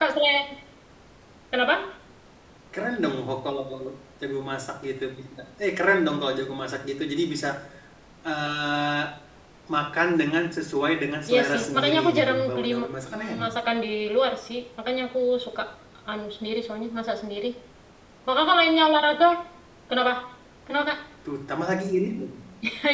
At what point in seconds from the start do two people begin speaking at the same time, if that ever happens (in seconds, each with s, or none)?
11.3 s